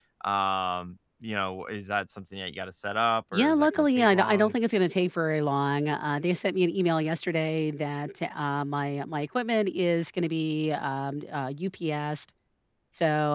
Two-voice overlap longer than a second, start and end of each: 3.3-4.5

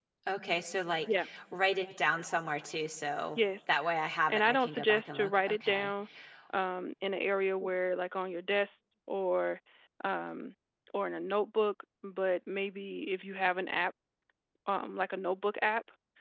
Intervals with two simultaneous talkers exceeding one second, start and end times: 4.3-5.9

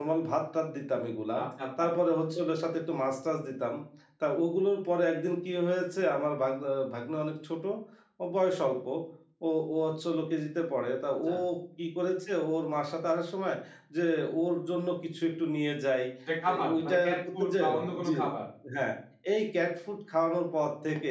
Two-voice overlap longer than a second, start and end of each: 16.5-18.1

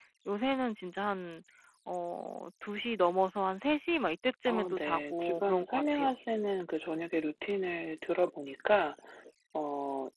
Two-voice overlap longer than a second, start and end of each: 4.5-6.2

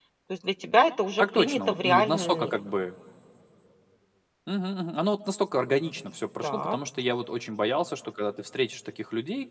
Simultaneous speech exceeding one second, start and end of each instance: 1.2-2.6

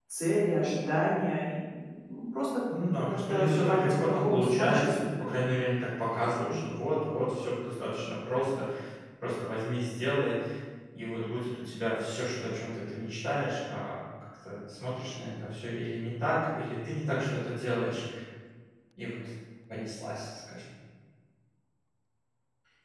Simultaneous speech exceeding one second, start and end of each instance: 3.1-5.3

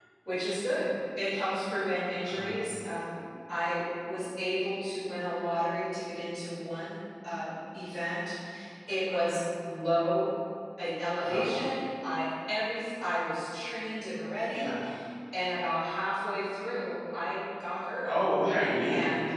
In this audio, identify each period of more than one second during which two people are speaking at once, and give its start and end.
none

